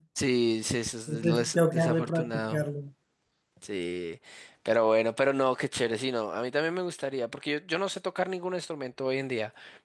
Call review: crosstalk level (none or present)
present